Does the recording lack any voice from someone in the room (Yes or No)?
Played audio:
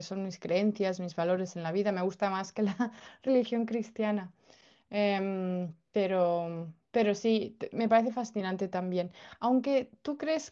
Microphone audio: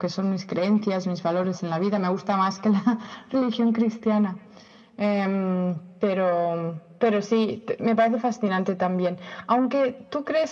Yes